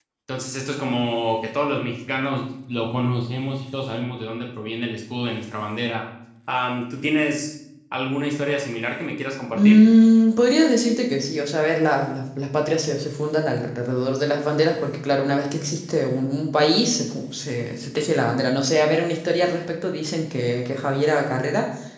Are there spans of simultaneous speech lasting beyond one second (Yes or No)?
No